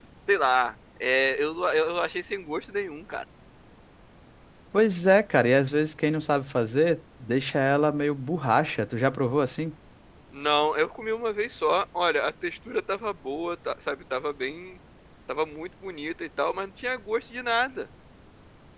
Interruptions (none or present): none